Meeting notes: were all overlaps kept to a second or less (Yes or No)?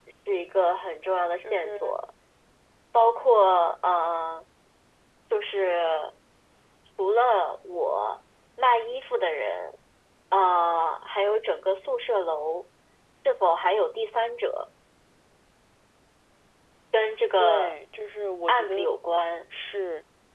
Yes